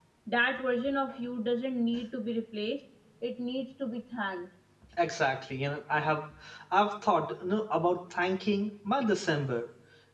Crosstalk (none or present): none